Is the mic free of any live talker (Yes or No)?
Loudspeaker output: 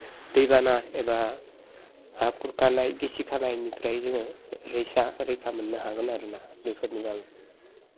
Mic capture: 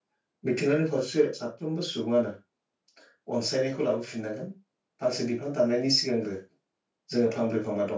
No